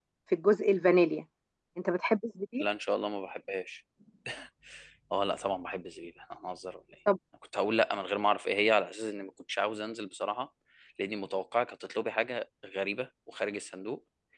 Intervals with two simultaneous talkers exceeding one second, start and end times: none

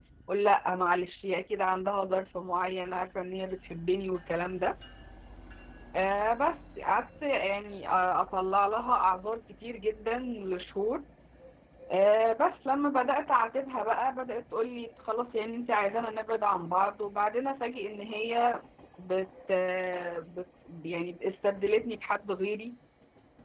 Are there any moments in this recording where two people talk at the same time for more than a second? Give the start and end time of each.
none

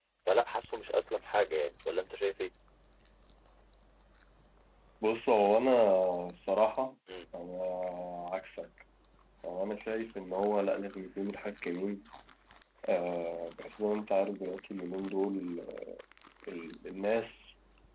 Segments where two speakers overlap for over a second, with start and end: none

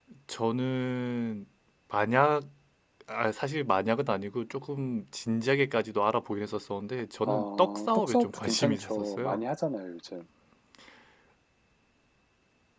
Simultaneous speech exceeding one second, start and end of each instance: 7.2-9.4

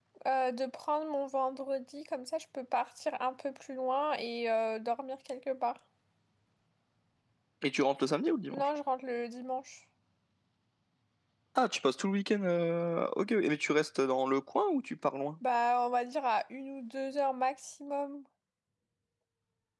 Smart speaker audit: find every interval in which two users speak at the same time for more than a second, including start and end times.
none

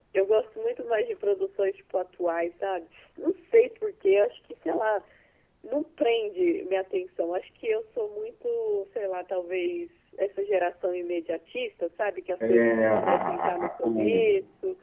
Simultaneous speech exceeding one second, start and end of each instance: 12.4-14.3

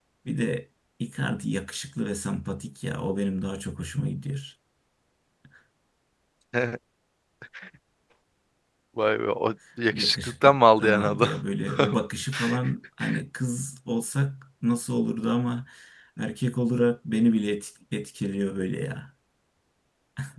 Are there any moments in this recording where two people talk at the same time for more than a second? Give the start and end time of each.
9.9-11.3

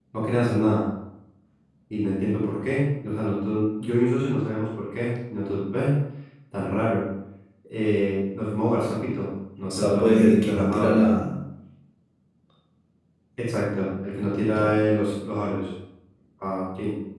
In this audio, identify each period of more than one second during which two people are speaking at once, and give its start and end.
9.7-11.0

